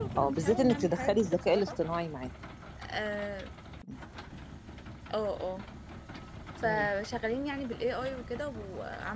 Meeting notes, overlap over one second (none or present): present